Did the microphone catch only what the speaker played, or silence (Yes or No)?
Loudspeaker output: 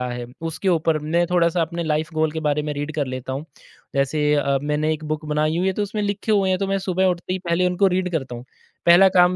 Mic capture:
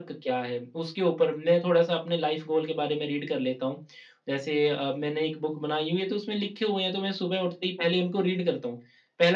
Yes